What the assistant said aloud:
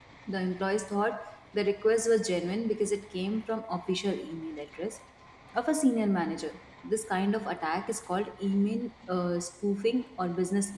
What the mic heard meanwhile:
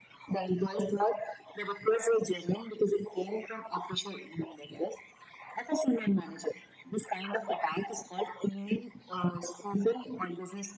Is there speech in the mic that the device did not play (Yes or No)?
No